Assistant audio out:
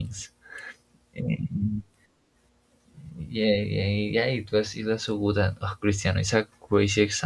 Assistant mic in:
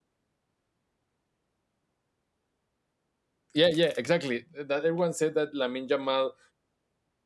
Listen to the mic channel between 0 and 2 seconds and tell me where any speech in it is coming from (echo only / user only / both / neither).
neither